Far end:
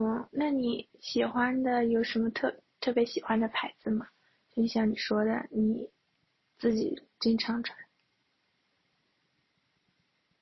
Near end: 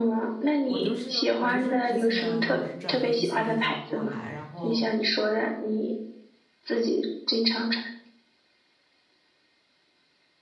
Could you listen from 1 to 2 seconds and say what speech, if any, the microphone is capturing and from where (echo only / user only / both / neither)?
both